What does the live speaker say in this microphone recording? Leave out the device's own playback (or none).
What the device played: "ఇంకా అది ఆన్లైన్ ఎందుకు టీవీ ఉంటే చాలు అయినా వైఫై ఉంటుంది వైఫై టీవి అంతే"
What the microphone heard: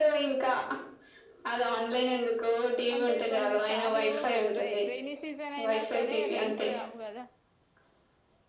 అంటే కొన్ని సార్లు రే రైని సీజన్ అయినా సరే రైయిన్స్ రావు కదా